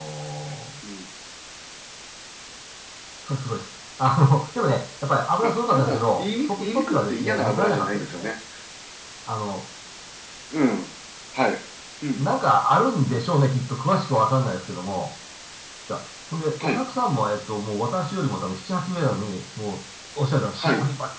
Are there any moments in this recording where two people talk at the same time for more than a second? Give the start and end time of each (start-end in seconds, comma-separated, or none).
5.4-8.3